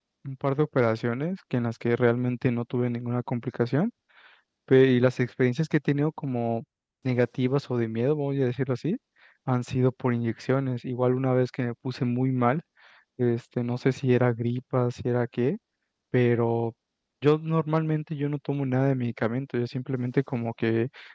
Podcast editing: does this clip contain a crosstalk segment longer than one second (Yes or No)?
No